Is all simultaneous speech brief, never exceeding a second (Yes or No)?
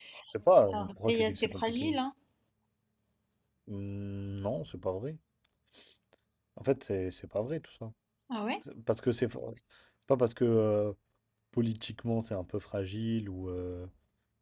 No